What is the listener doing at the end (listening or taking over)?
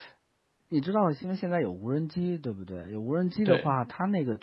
listening